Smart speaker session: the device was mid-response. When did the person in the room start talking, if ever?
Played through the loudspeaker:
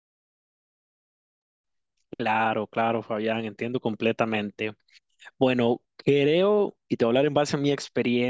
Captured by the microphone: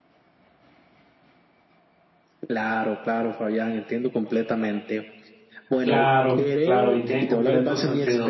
5.8 s

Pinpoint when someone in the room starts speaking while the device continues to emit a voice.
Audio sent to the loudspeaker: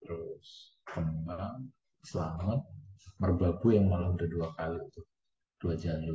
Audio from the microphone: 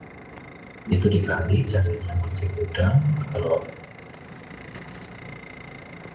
0.9 s

